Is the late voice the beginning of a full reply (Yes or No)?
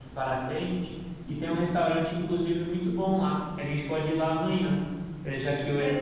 No